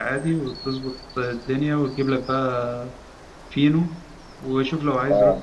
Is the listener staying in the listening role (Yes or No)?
Yes